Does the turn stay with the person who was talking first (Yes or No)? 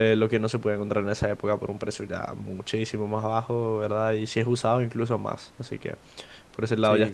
Yes